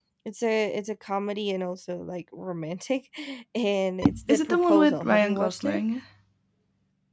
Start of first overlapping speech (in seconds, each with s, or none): 4.3 s